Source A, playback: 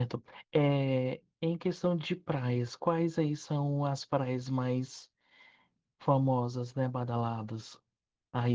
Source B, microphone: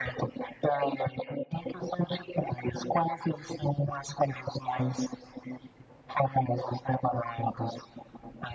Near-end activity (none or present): none